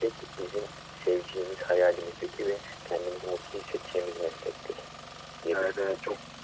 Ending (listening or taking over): taking over